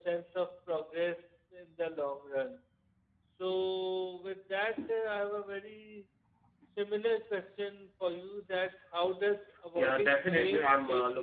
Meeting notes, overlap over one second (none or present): present